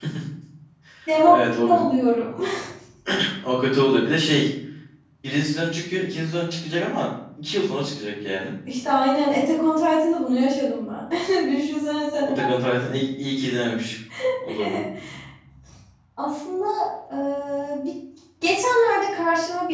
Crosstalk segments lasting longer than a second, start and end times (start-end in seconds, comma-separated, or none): none